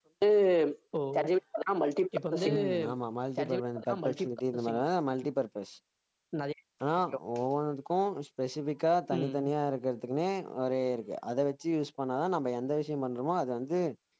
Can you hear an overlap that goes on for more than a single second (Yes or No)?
Yes